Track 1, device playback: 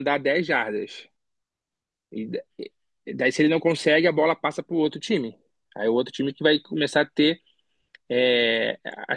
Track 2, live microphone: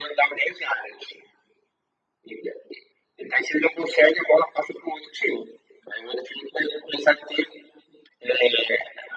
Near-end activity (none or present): none